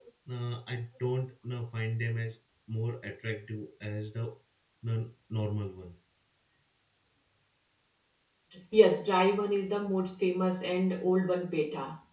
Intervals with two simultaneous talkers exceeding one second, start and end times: none

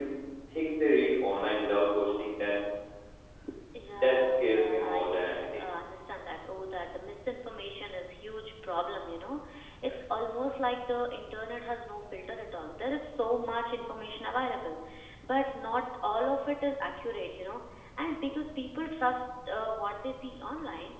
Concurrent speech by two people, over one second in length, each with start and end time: 3.9-5.6

